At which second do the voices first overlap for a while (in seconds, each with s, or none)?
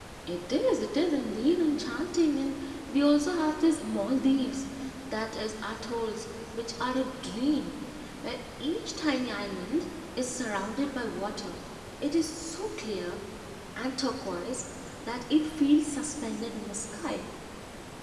none